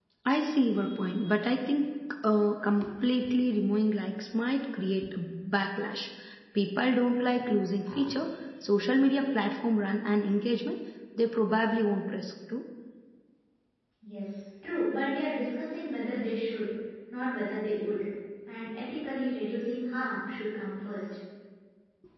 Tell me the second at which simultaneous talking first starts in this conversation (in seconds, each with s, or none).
none